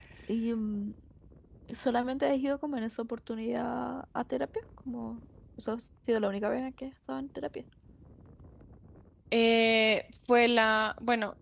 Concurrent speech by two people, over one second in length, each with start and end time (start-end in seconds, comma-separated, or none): none